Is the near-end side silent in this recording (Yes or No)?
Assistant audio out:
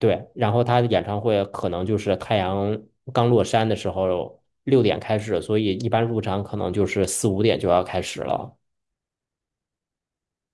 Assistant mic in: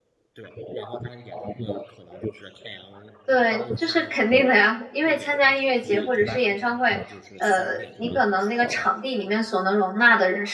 No